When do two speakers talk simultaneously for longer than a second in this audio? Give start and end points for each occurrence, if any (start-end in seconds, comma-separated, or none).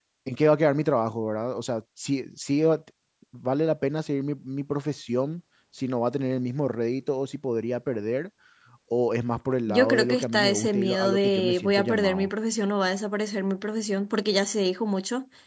9.7-12.3